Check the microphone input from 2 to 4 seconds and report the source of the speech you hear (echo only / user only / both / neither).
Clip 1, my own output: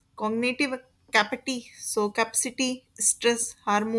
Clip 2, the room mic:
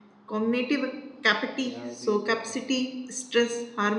both